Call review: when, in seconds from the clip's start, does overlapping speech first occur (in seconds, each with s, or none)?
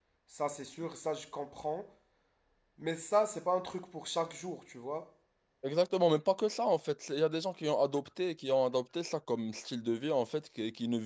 none